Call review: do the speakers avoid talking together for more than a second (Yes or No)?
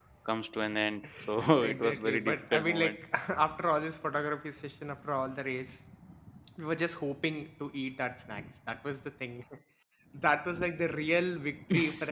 No